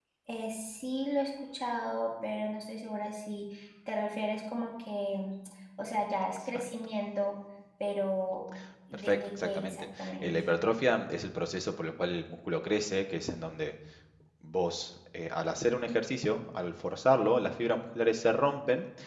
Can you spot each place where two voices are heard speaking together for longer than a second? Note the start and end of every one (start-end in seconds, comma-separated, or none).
8.9-10.3